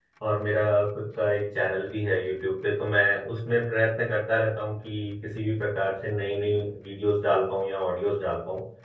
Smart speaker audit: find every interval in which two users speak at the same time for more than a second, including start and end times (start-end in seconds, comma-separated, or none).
none